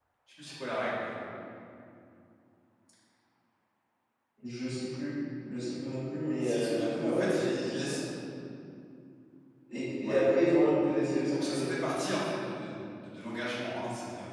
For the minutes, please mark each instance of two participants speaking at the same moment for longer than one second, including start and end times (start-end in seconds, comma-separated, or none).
6.4-8.0